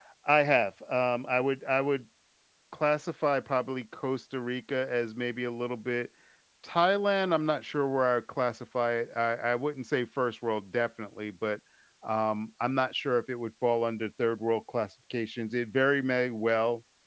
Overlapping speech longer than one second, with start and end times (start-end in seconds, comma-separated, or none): none